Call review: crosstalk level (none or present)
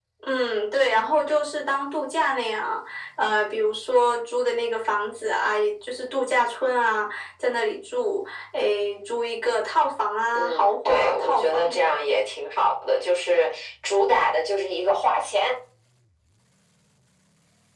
present